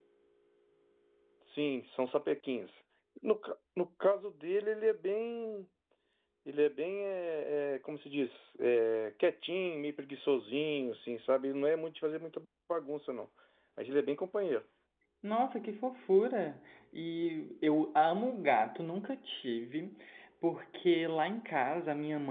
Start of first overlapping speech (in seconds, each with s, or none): none